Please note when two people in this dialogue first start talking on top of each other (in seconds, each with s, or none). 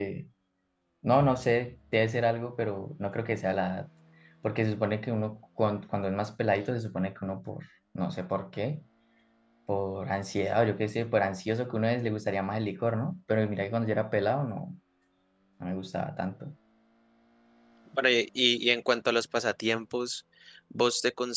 none